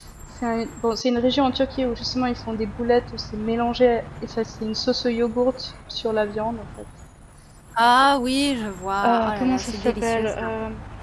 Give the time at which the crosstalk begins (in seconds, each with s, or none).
9.0 s